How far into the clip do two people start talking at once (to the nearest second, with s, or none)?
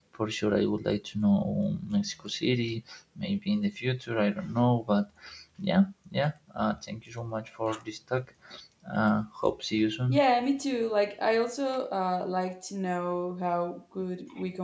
none